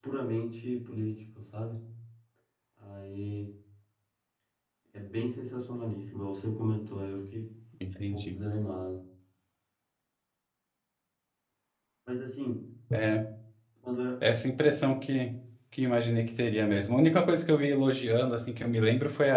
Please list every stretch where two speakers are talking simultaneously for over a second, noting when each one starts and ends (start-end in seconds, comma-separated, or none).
none